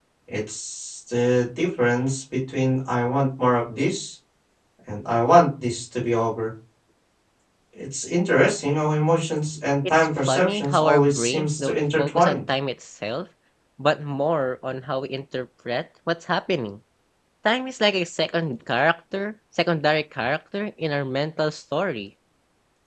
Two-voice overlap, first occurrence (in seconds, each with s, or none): 9.8 s